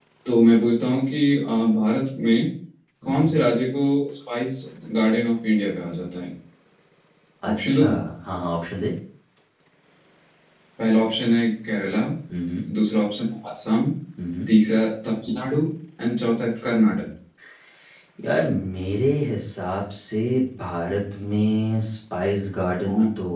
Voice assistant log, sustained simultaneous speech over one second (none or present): none